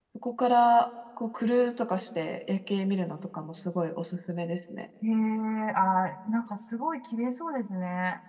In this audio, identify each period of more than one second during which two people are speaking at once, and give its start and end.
none

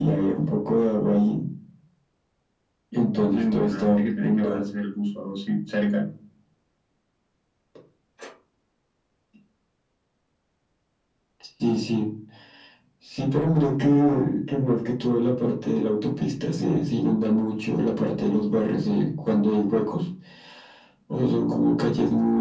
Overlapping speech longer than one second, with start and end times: 3.3-4.6

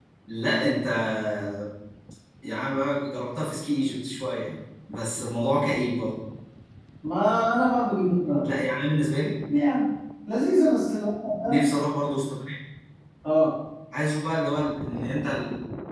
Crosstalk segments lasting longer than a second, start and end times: none

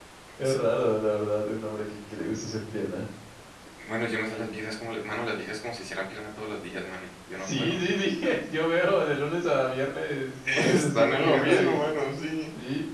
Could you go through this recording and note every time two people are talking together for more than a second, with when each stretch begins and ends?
10.4-11.8

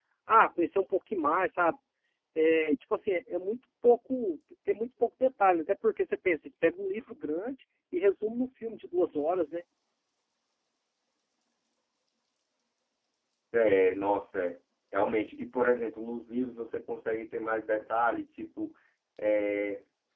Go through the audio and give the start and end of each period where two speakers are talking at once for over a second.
none

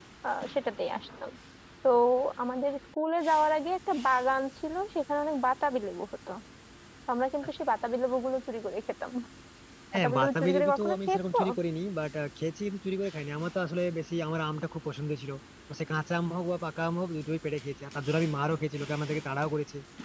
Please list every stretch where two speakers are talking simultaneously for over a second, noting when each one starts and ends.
9.9-11.4

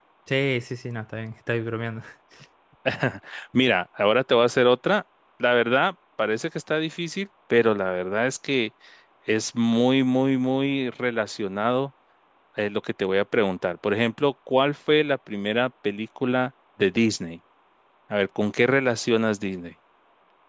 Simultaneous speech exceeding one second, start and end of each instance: none

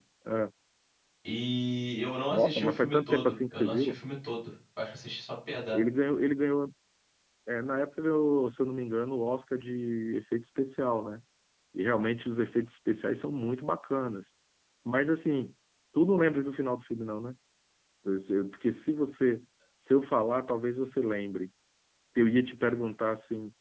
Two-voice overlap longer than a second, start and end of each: 2.3-4.0

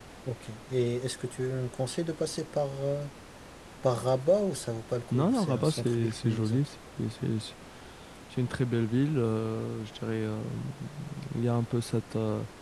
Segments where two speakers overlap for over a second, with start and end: 5.1-6.6

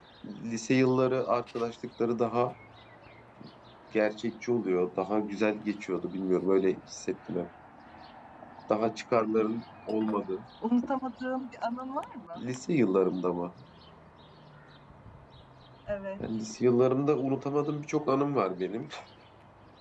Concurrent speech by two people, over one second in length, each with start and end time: none

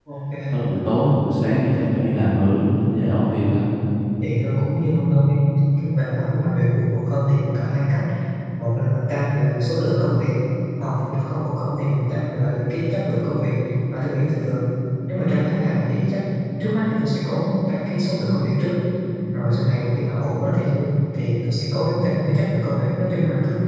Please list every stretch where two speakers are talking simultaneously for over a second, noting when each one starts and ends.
none

